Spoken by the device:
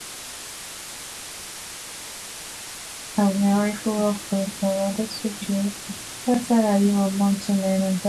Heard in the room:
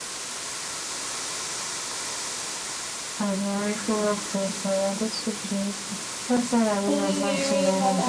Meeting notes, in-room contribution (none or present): present